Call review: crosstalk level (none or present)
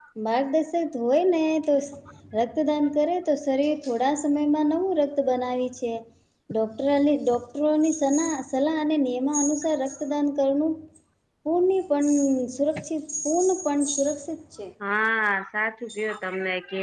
none